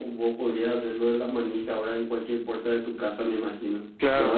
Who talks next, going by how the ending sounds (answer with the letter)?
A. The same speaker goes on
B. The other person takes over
B